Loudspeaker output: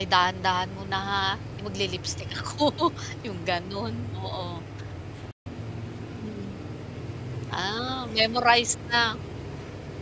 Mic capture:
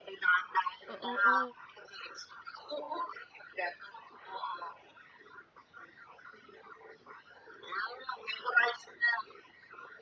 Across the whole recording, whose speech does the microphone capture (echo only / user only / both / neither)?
both